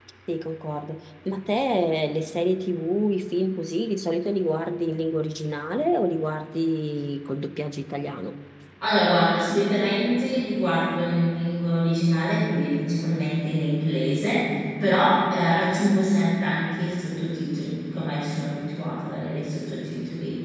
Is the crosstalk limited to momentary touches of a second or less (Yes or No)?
Yes